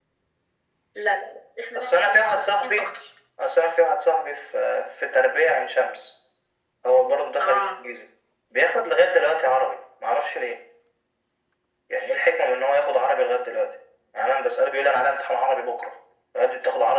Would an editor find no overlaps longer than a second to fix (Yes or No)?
No